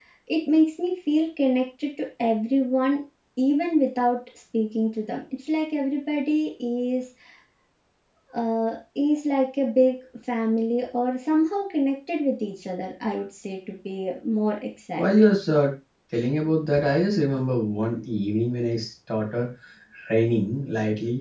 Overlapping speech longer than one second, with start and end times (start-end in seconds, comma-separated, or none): none